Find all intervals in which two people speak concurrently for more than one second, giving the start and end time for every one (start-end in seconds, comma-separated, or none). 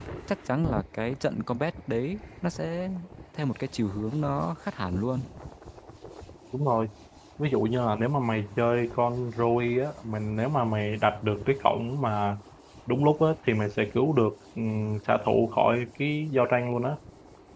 none